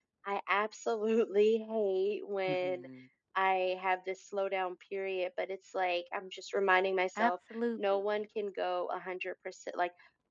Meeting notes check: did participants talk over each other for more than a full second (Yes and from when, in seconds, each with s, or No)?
No